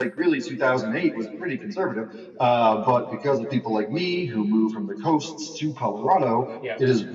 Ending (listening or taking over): listening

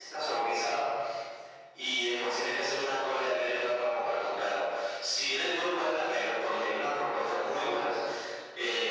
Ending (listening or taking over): listening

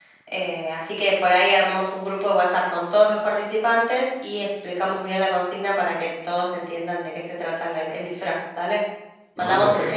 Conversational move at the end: listening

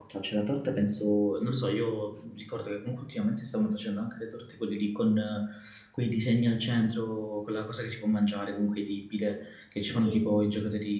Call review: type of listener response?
listening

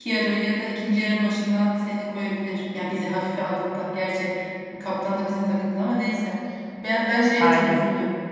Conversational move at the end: listening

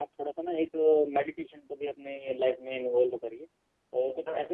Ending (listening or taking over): listening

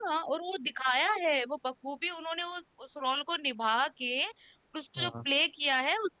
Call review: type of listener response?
listening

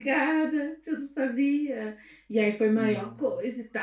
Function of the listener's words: listening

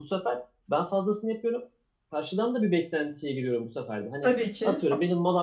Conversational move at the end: listening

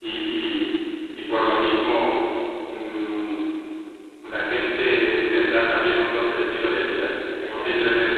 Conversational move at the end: listening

